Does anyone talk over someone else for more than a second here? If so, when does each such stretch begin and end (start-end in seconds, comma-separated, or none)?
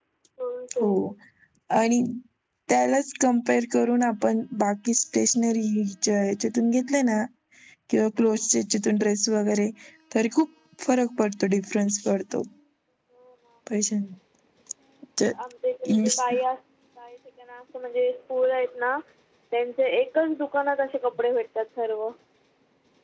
none